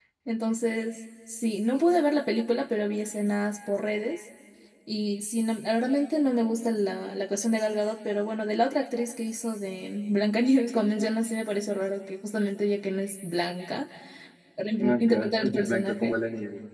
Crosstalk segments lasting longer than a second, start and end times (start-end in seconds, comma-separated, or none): 14.8-16.1